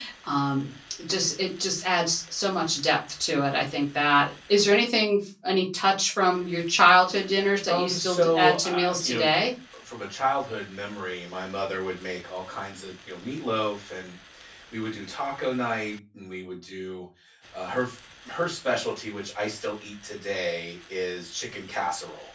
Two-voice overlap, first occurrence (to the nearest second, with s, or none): 8 s